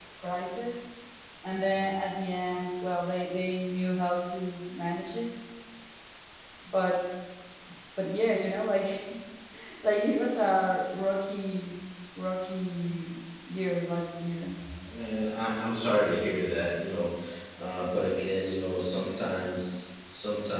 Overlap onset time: none

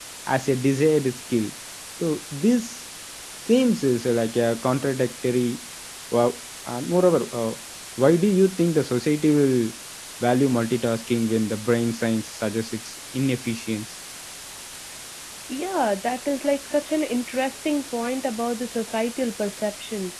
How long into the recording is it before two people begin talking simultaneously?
none

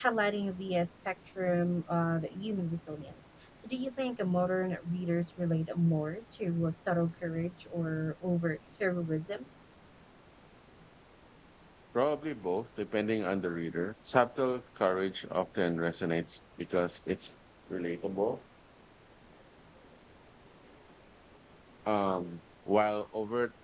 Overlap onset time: none

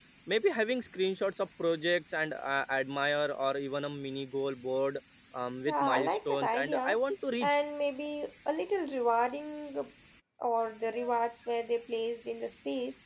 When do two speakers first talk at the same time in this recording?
5.7 s

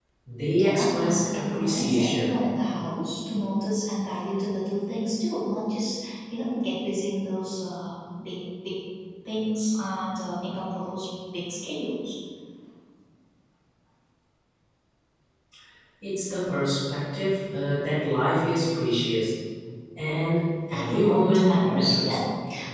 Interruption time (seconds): 0.6 s

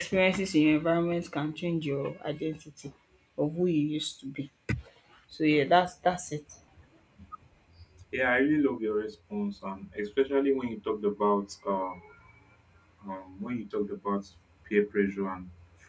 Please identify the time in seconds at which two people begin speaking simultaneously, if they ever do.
none

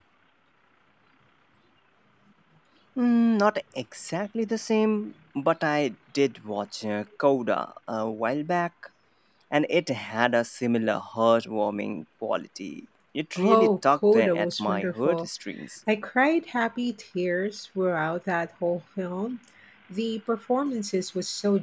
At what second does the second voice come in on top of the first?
13.3 s

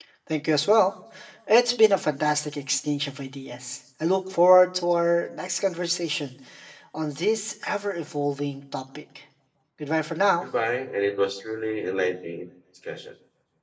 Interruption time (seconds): none

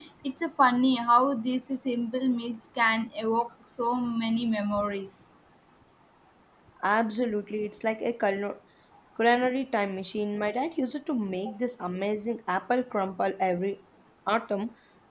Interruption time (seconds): none

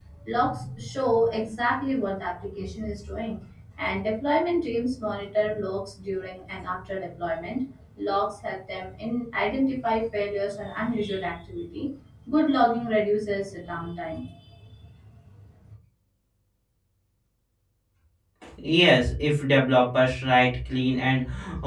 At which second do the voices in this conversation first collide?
none

